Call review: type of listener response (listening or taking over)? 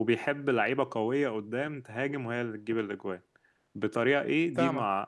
listening